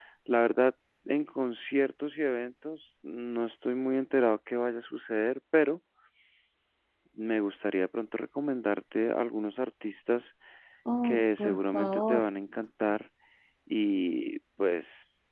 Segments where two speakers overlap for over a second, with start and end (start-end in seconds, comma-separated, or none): 11.0-12.3